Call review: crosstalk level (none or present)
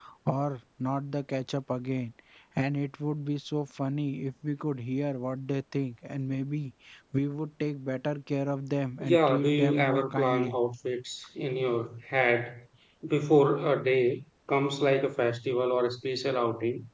present